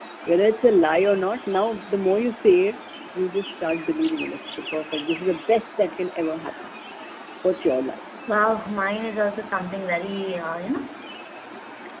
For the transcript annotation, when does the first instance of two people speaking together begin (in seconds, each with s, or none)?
none